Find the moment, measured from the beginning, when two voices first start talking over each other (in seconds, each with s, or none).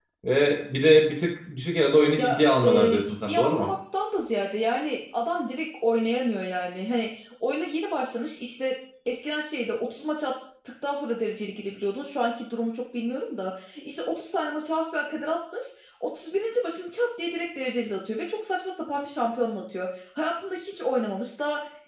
2.2 s